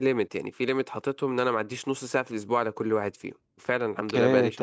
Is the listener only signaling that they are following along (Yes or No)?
No